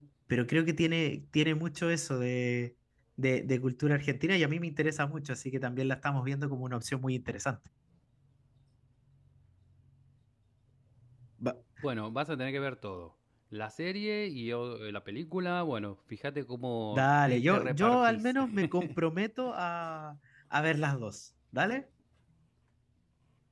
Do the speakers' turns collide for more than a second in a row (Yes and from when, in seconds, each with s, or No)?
Yes, from 16.9 s